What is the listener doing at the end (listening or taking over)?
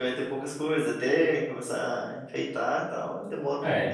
taking over